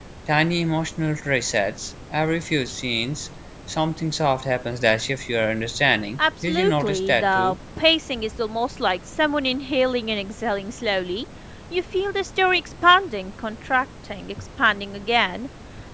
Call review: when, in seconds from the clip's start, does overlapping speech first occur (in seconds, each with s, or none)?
6.2 s